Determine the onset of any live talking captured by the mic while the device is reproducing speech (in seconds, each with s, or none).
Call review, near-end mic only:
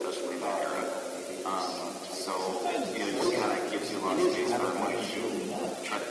2.4 s